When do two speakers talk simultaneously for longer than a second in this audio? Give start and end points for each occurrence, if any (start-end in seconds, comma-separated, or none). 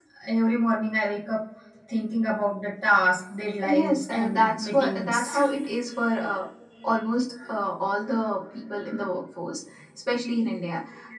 3.6-5.4